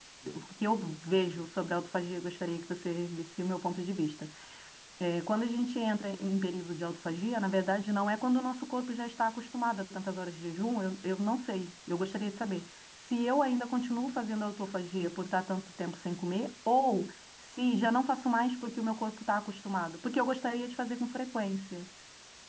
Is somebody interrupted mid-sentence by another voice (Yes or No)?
No